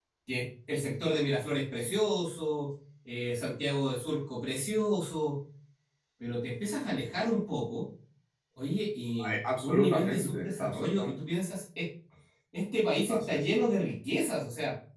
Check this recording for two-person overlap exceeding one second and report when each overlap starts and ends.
9.2-11.1

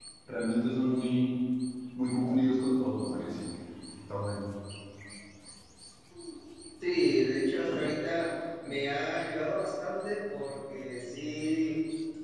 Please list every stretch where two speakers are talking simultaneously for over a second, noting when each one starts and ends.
none

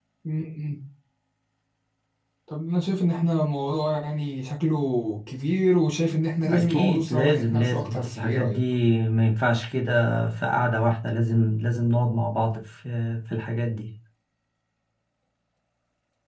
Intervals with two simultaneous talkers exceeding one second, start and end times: 6.5-8.6

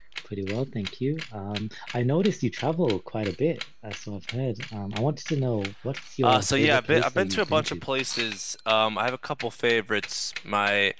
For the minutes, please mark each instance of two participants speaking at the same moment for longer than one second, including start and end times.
6.2-7.8

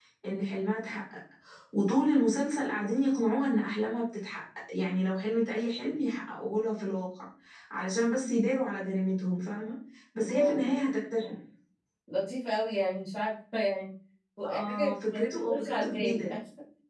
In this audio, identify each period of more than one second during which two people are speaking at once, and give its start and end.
14.5-16.4

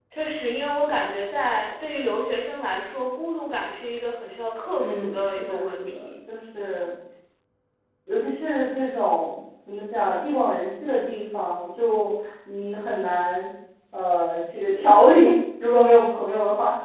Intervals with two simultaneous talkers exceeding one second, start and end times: 4.8-6.1

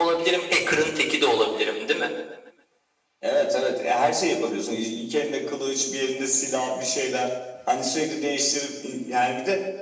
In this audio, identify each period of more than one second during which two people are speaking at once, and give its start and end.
none

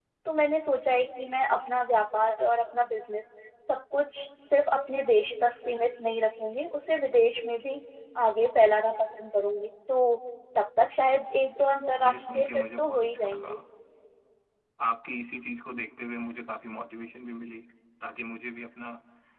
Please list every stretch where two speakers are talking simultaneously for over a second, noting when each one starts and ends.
12.0-13.5

